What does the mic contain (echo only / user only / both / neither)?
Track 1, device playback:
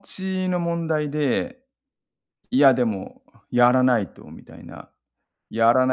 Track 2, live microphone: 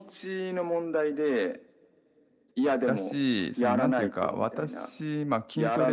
both